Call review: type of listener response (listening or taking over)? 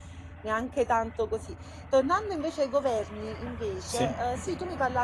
listening